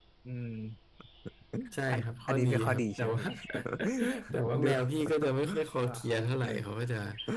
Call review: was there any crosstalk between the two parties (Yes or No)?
Yes